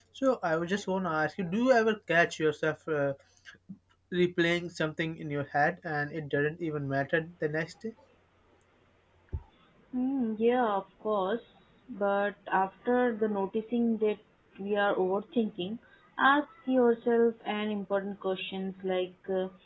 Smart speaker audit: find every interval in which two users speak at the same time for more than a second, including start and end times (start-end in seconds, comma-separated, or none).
none